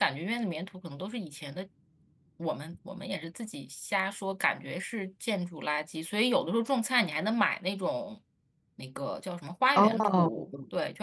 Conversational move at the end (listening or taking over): listening